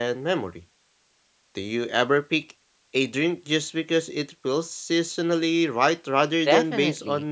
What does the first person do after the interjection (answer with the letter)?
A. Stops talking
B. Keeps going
A